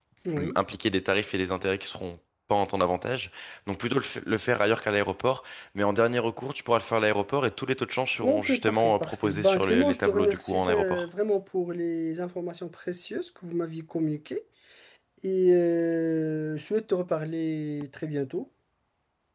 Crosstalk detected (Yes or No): Yes